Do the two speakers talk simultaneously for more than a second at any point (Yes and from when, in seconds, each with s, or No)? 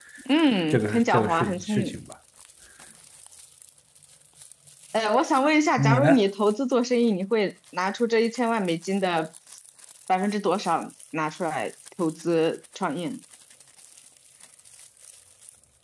Yes, from 0.7 s